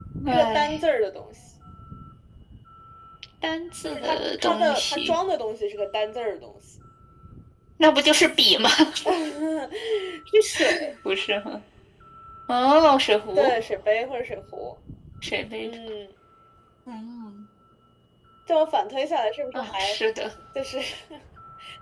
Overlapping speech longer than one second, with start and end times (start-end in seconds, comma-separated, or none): 3.9-5.2